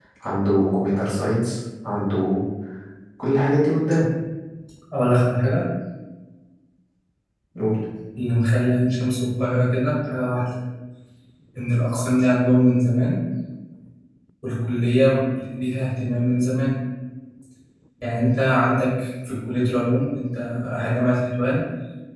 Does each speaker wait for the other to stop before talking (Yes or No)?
Yes